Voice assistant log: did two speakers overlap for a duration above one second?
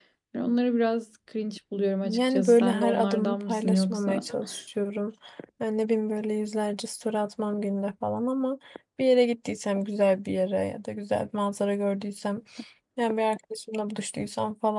Yes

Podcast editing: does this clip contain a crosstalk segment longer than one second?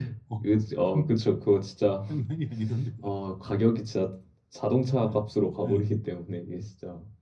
No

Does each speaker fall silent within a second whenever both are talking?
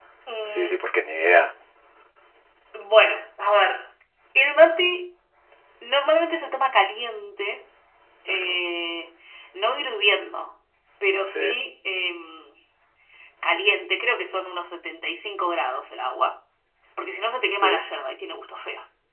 Yes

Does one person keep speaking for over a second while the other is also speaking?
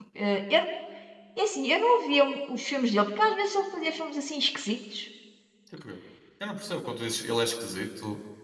No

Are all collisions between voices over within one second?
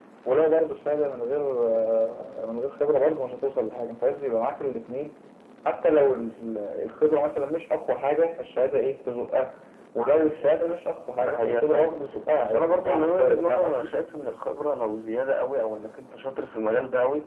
No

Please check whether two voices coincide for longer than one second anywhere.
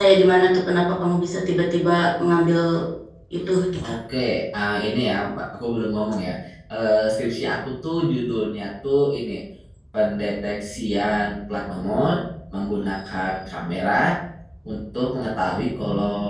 No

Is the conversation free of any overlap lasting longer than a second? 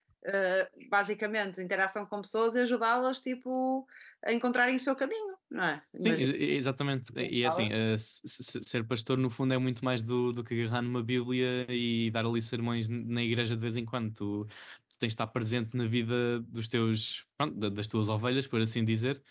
Yes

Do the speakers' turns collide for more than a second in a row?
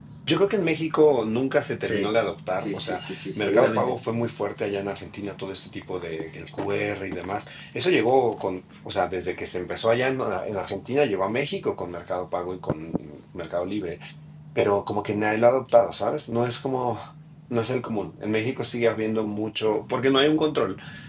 Yes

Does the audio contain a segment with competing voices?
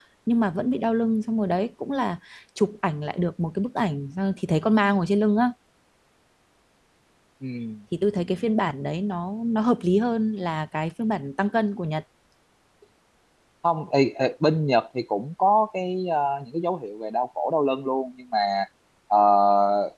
No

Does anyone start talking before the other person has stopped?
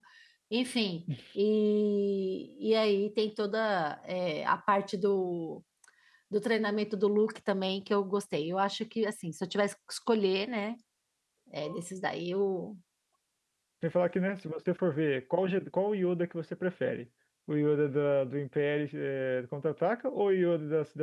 No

